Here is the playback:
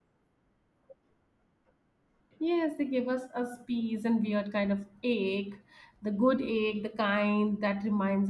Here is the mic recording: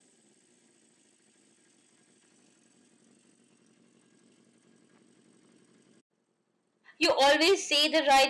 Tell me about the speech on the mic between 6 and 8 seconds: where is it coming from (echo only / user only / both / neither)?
user only